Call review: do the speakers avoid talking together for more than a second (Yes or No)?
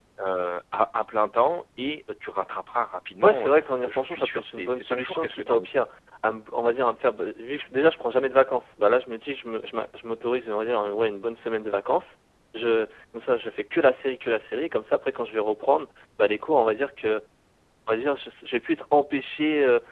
No